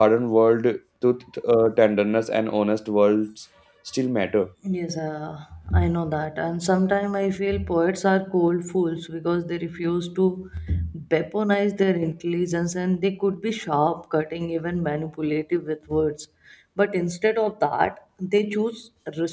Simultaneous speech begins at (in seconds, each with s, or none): none